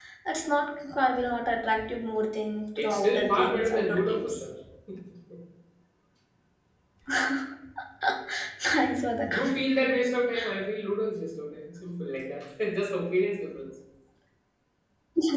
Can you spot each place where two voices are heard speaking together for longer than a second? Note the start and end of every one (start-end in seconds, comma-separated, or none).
2.8-4.4